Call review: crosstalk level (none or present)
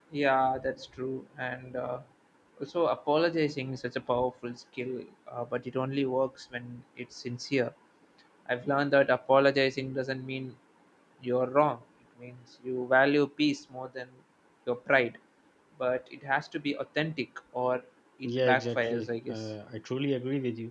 present